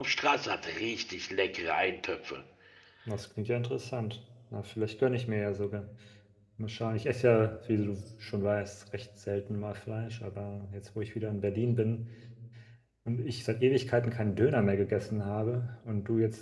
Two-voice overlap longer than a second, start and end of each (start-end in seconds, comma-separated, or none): none